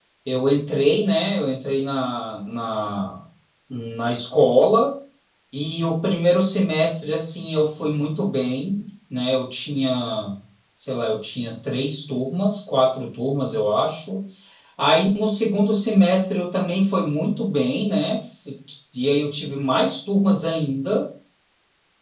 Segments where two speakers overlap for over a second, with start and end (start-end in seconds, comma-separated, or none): none